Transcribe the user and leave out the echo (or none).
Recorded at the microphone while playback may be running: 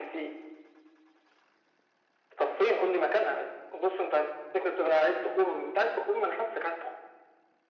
none